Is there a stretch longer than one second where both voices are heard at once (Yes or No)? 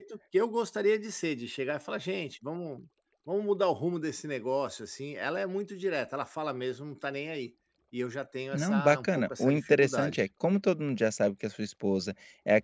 Yes